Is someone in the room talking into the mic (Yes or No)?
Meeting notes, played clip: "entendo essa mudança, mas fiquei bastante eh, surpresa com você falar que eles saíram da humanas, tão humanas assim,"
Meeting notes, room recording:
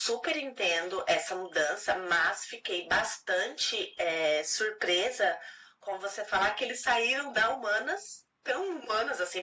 No